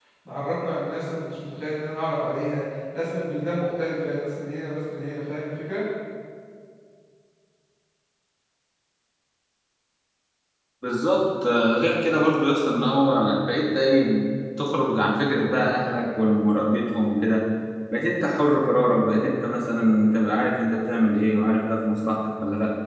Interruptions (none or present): none